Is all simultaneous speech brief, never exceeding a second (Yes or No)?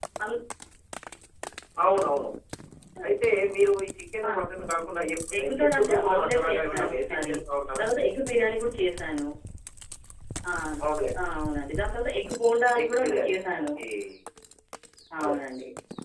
No